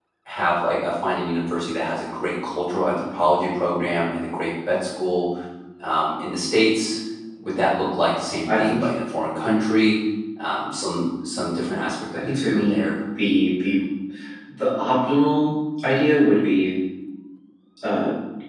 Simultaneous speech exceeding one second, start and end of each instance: 11.7-12.9

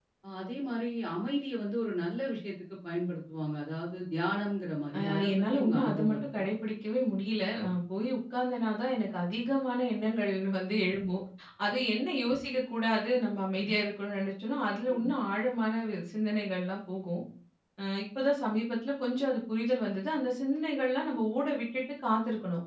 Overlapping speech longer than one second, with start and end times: 5.0-6.4

